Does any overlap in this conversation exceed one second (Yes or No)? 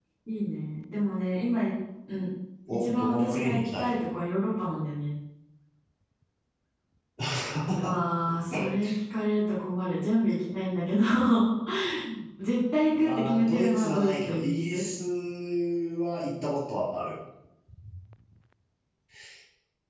Yes